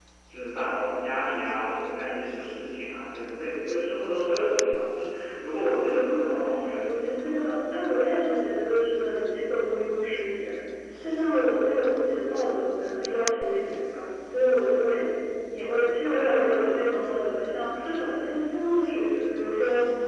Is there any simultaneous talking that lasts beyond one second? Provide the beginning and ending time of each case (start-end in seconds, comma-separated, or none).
5.9-7.4